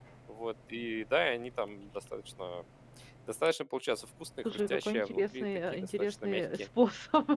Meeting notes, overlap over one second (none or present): present